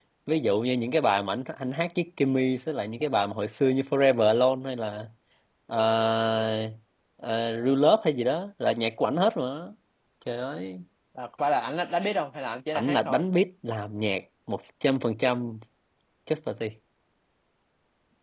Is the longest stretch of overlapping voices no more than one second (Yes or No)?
Yes